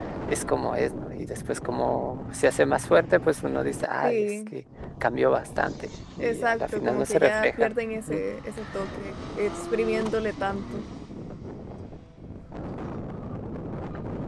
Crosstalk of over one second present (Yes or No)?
Yes